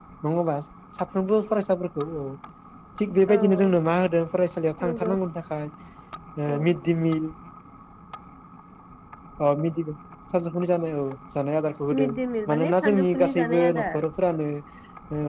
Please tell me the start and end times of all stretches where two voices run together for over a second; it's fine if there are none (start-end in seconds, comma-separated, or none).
12.5-14.0